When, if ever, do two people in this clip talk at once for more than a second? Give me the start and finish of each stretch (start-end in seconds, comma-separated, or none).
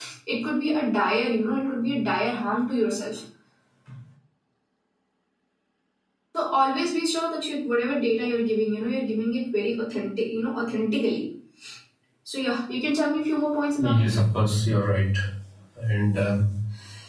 none